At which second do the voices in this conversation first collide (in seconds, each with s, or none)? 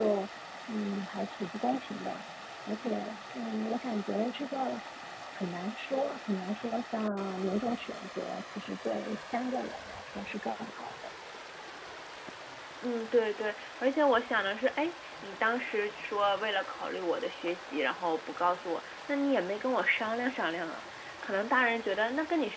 none